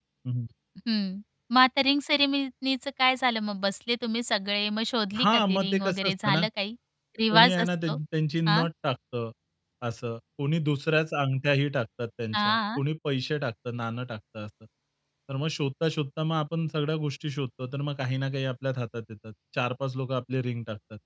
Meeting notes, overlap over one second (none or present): present